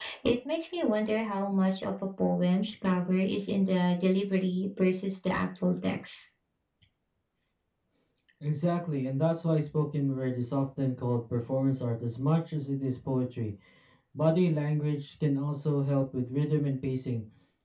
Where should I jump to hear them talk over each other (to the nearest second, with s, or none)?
none